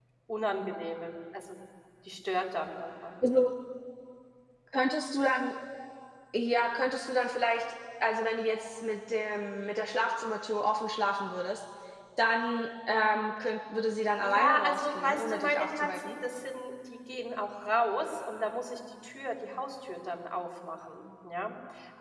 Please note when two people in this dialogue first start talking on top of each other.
14.2 s

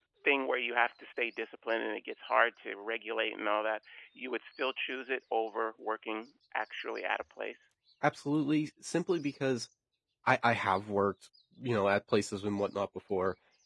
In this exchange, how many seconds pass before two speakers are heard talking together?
none

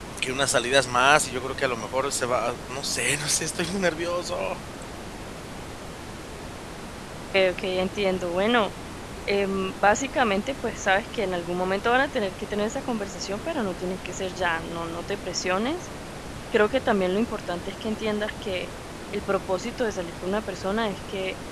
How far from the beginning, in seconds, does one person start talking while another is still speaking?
none

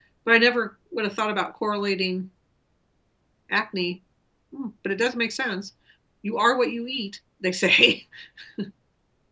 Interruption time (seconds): none

